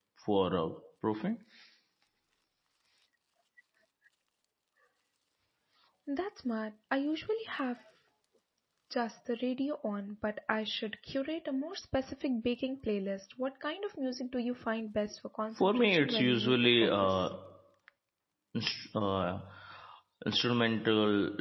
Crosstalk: present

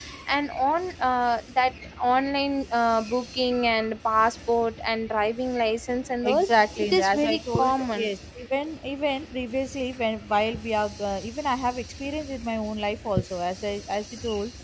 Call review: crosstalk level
present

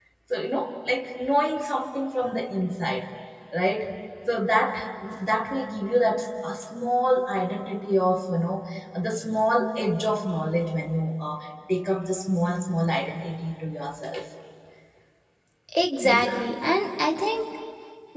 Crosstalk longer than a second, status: none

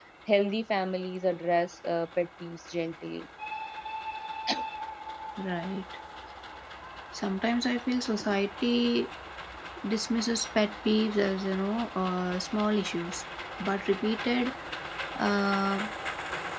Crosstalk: none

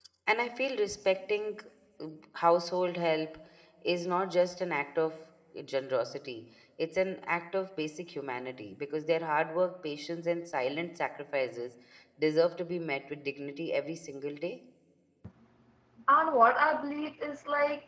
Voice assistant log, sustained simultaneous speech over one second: none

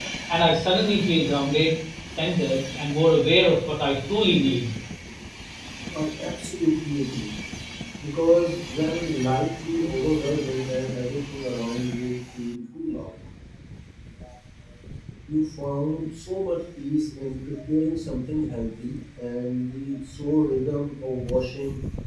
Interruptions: none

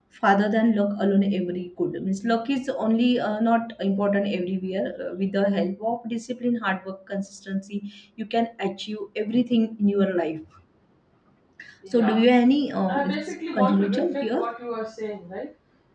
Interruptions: present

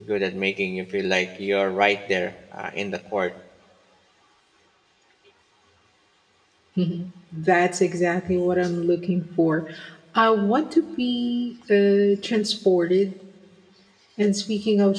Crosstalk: none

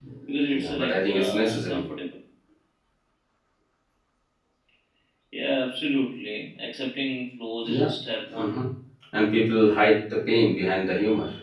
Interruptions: present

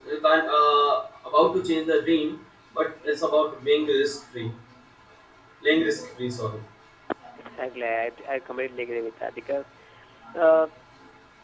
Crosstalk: none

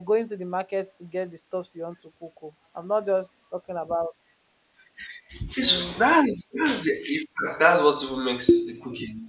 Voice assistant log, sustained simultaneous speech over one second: none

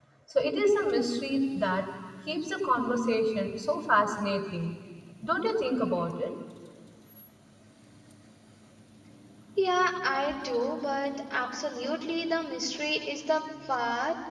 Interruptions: none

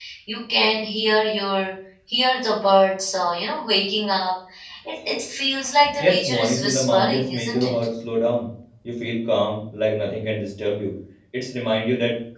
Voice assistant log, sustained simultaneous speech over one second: present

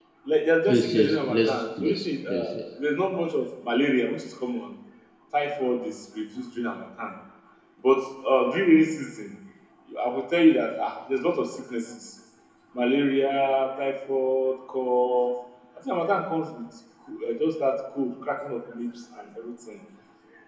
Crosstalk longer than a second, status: present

